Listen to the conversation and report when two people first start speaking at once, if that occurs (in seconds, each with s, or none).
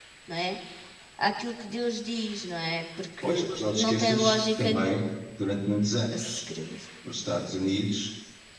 3.2 s